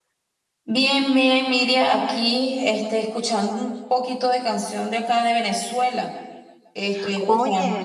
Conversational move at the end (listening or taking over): listening